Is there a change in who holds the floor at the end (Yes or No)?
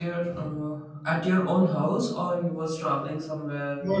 Yes